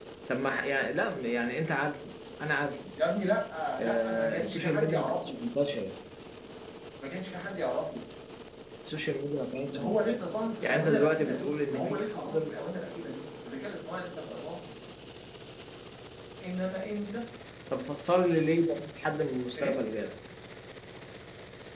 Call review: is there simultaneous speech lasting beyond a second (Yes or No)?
Yes